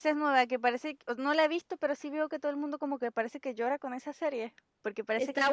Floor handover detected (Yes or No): Yes